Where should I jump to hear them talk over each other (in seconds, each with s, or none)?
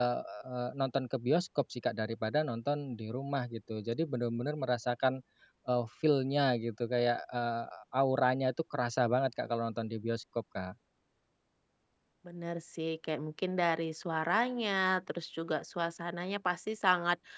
none